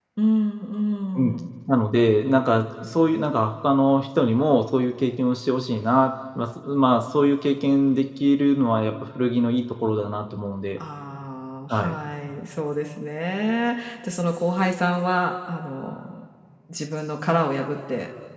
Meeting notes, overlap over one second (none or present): none